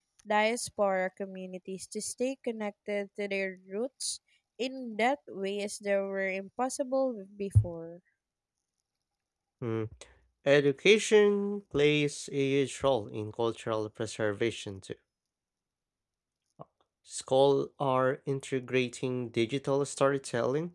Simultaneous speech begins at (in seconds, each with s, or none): none